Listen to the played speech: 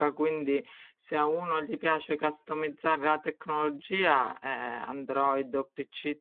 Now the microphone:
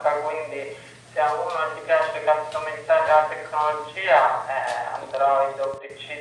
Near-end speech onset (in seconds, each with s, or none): none